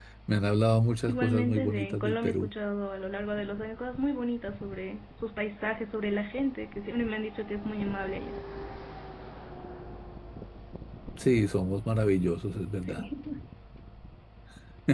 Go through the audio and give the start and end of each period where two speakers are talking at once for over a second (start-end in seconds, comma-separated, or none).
1.1-2.5